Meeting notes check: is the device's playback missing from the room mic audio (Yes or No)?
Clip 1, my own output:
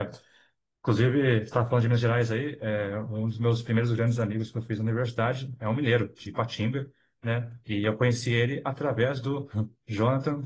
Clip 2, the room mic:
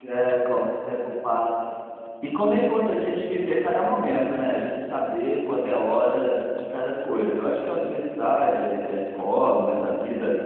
Yes